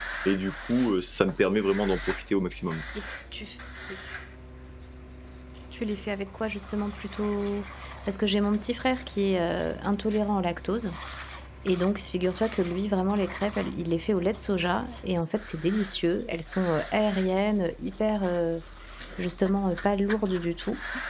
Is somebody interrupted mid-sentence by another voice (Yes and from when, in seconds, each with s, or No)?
No